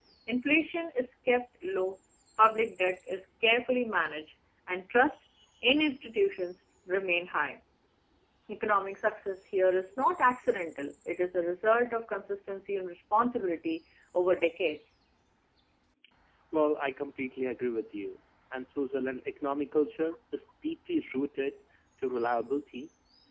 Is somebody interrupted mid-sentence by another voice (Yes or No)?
No